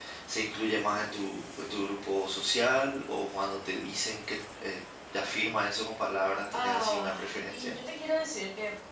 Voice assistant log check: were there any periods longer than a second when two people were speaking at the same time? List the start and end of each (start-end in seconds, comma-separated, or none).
6.5-7.7